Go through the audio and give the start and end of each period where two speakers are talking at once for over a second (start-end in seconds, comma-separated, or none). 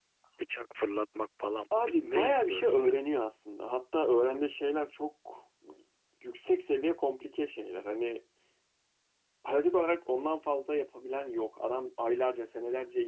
1.7-2.9